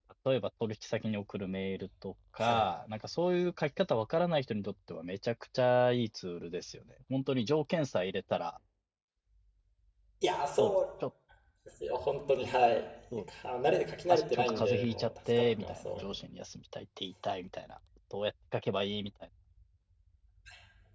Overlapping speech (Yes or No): Yes